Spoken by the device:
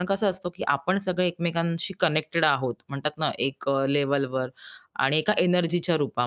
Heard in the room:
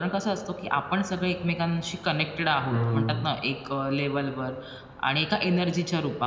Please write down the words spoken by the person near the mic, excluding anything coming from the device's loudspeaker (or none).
हं.